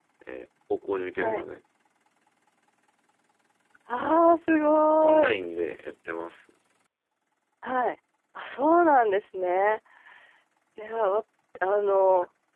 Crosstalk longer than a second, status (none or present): none